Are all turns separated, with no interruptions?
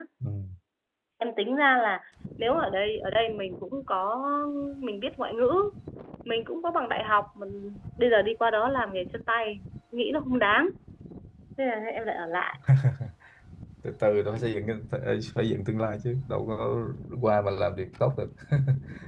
Yes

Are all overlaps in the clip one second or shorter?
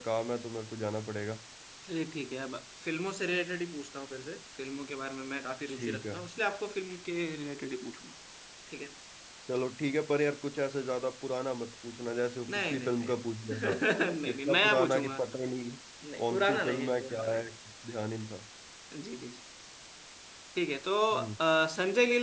No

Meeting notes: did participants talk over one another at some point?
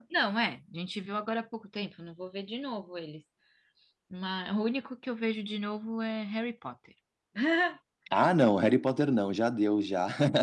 No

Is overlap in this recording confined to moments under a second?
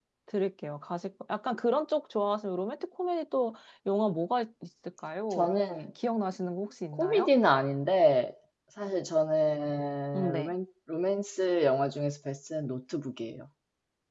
Yes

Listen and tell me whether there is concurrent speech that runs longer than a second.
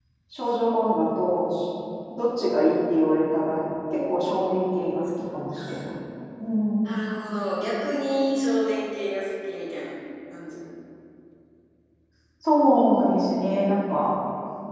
No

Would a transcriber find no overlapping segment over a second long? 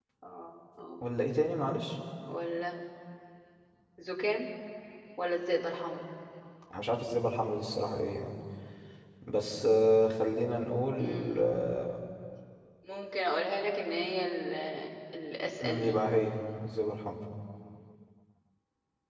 Yes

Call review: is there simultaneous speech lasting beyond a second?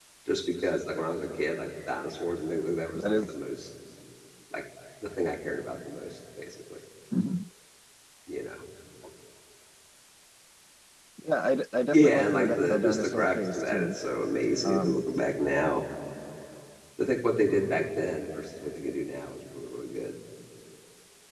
Yes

